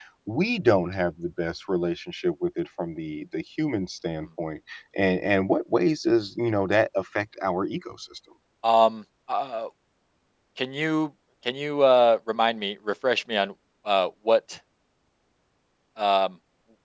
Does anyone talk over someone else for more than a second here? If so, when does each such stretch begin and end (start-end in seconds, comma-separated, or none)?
none